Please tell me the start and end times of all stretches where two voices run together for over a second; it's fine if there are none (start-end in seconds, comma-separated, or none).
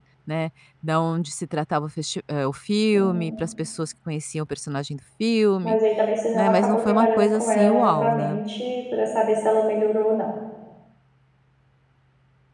6.3-8.4